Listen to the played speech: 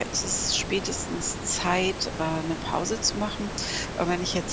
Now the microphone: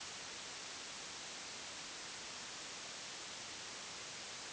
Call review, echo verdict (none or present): none